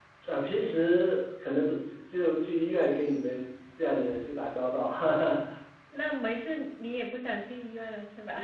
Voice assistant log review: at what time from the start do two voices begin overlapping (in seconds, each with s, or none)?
none